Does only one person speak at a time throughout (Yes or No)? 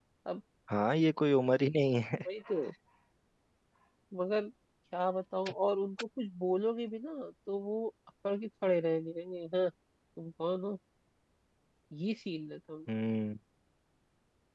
Yes